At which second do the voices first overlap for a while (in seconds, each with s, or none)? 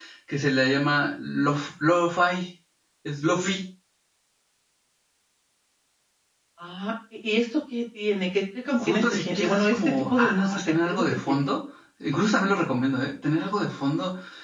8.8 s